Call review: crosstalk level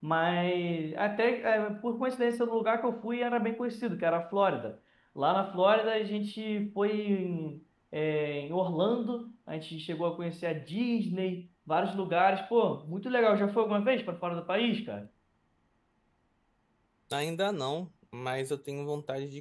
none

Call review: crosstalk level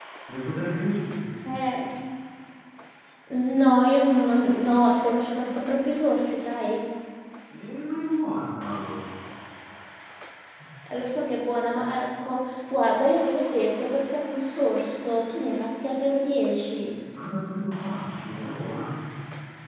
none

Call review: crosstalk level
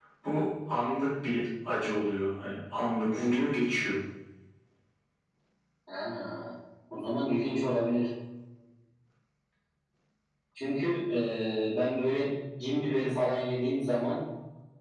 none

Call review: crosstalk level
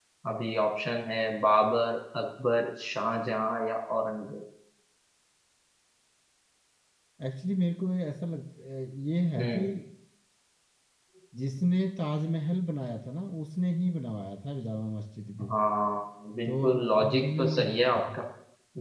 present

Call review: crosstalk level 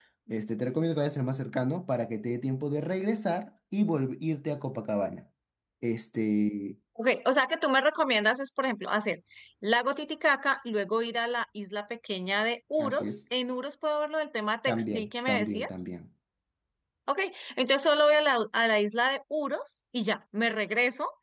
present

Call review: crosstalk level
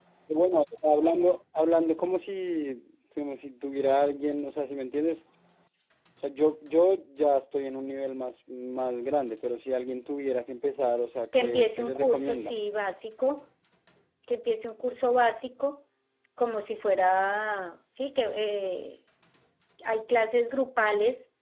present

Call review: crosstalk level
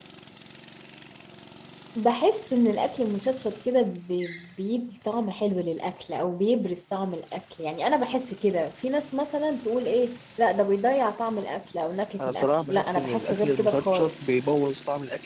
present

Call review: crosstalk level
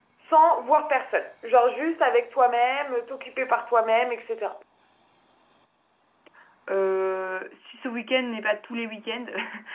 none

